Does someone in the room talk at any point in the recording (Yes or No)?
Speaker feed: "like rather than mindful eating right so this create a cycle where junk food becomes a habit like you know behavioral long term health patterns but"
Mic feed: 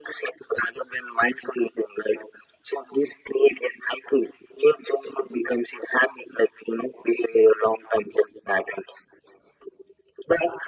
No